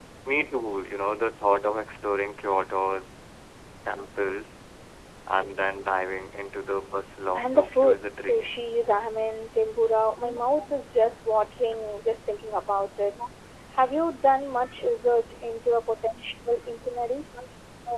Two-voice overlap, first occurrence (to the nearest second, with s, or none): 7 s